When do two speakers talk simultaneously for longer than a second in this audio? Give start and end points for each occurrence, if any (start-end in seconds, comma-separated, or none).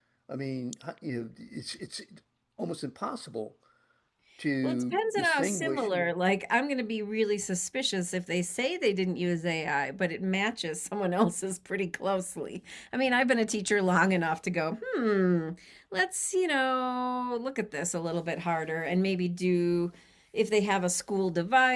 4.6-5.9